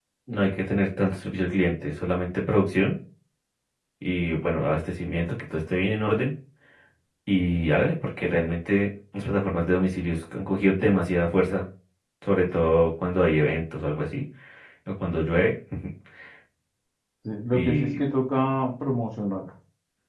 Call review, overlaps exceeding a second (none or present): none